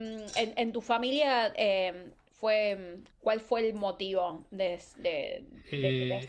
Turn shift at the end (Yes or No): Yes